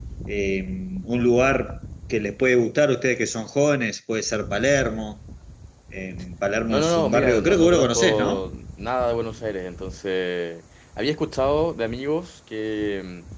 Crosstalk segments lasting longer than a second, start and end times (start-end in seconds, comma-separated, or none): 6.7-8.4